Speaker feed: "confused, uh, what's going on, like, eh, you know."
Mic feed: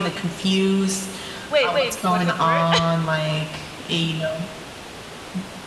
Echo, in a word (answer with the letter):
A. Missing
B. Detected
B